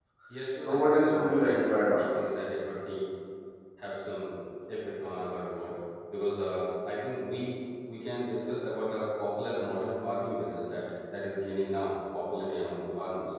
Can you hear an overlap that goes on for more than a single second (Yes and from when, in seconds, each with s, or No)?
Yes, from 0.6 s